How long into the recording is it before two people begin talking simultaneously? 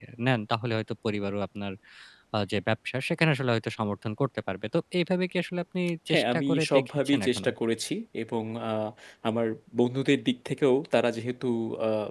6 s

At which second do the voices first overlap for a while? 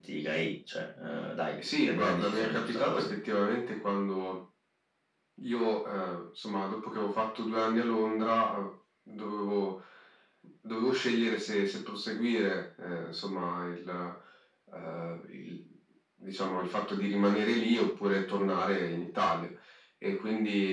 2 s

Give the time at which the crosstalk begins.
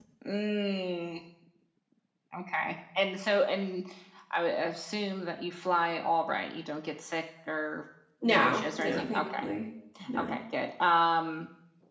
8 s

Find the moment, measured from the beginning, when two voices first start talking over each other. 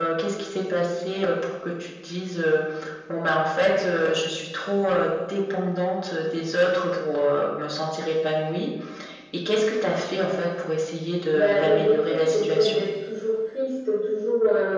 11 s

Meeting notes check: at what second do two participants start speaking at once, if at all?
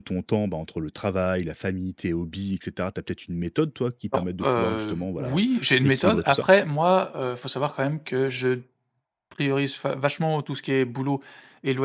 4 s

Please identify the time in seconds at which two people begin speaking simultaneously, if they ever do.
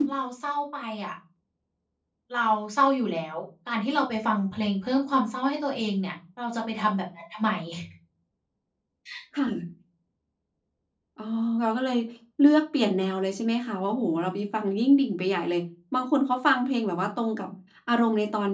none

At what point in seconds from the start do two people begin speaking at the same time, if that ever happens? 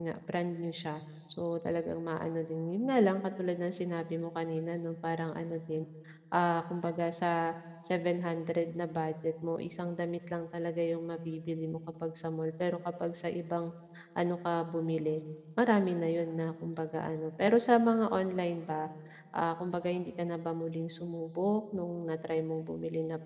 none

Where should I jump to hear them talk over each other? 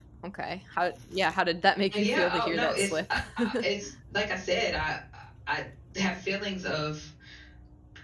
2 s

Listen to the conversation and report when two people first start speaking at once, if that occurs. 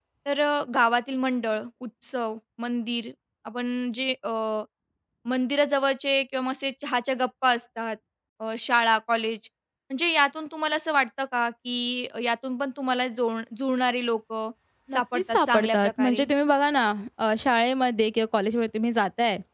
15 s

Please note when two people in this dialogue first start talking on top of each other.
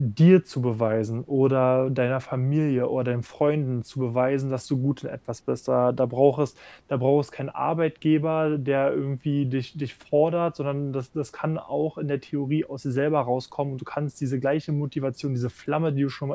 none

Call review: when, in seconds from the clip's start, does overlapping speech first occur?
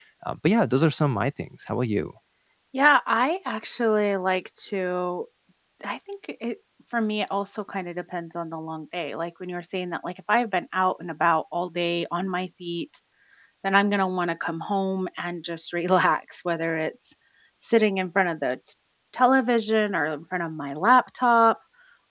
none

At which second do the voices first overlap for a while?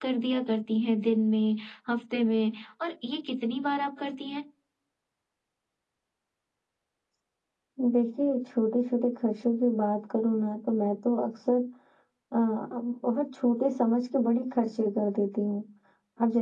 none

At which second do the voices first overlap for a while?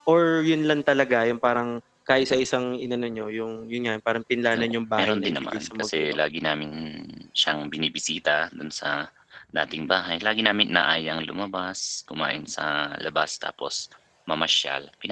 5 s

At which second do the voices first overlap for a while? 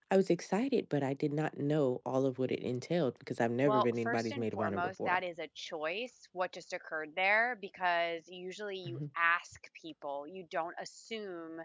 4 s

